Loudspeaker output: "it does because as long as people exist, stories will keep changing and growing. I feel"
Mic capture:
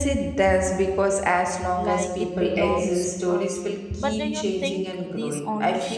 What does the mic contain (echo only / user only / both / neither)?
both